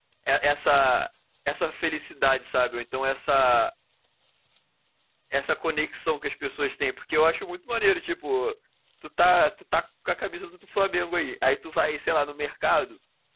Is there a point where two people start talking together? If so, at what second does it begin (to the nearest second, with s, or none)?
none